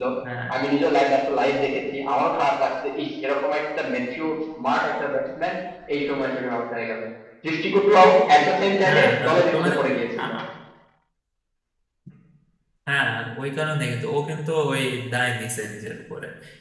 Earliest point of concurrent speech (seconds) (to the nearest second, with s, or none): 9 s